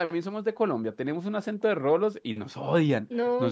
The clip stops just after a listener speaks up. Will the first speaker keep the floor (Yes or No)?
No